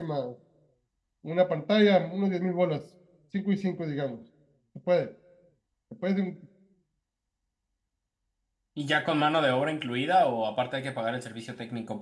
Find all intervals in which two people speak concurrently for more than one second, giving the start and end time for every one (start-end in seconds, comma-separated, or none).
none